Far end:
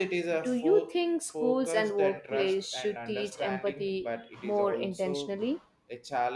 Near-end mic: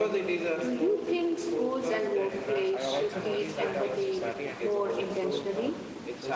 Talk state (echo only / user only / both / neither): both